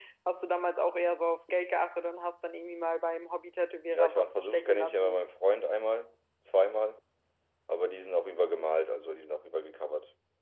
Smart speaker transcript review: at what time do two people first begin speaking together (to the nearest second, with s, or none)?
4 s